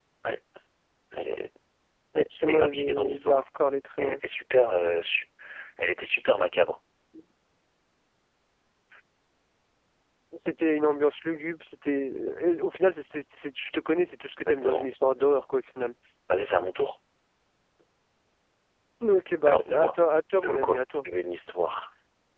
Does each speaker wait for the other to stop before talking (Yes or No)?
No